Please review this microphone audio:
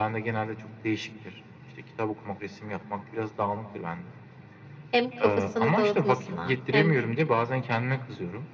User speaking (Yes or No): Yes